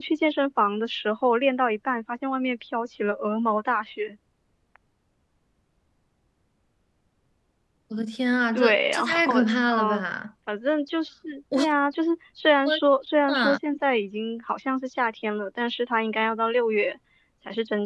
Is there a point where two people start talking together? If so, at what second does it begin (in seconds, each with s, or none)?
8.6 s